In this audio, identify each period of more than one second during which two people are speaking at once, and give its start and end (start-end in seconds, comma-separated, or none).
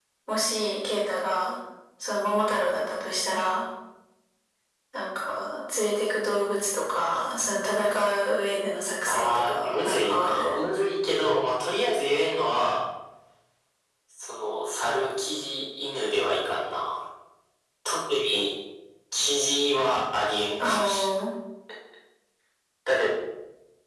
9.1-10.5